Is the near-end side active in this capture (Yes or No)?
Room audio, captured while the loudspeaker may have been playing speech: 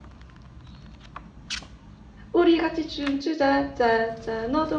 Yes